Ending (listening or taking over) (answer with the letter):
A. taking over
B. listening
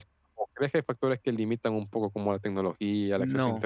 B